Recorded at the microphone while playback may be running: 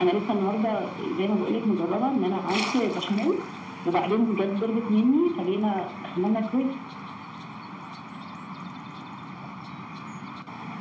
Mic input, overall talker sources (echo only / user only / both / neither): echo only